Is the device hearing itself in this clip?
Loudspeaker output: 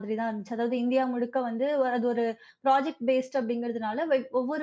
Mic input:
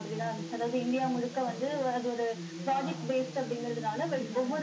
Yes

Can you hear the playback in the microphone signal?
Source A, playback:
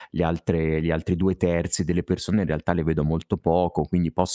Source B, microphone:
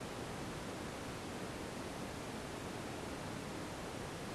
No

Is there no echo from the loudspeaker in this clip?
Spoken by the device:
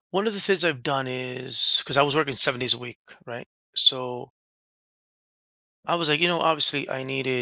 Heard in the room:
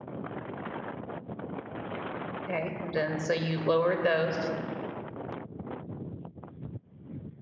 Yes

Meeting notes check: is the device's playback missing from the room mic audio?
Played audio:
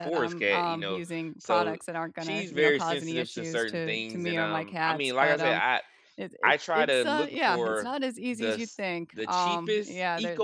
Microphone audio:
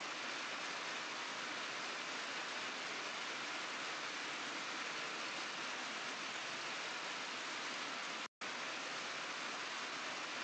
Yes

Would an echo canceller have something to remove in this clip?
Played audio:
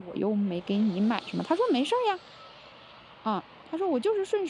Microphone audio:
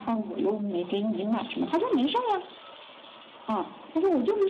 Yes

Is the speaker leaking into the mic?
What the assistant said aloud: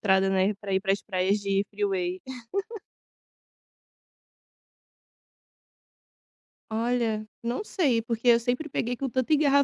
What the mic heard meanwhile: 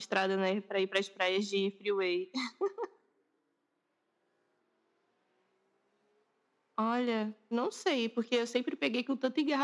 Yes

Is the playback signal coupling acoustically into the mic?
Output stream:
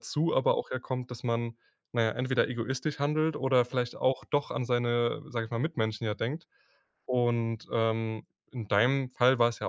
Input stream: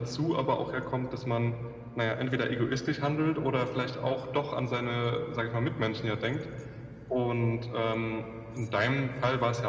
Yes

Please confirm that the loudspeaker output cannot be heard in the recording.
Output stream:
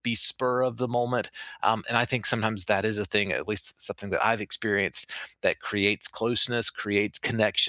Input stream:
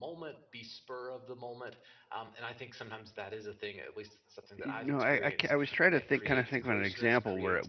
No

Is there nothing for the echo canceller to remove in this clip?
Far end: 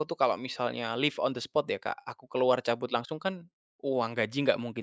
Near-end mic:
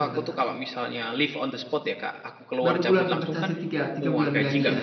No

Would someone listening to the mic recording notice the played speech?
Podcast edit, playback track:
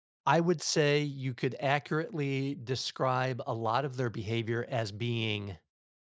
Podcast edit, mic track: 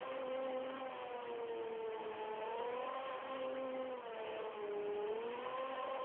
No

